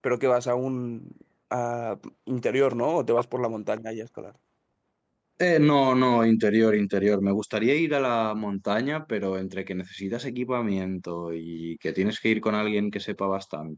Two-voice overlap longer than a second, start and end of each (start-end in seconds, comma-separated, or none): none